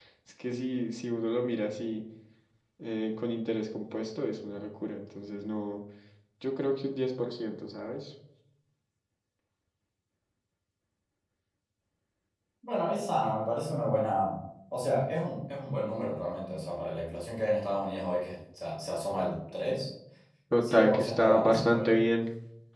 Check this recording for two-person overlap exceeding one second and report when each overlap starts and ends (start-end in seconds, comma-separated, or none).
20.6-22.0